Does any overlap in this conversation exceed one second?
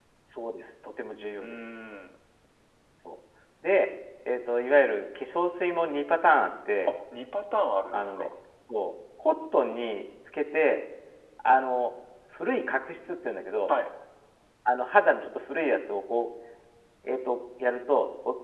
No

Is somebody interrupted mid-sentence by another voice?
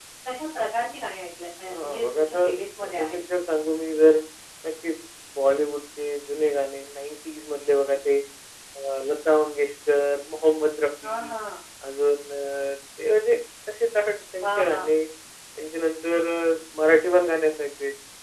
Yes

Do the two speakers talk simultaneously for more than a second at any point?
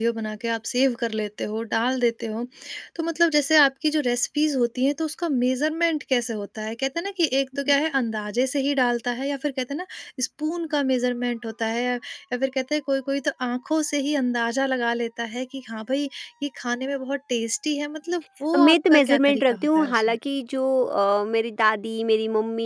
Yes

